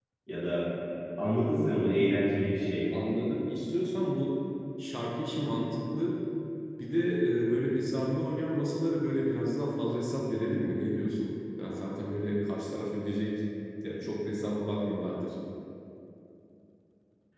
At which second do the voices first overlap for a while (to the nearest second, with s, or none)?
none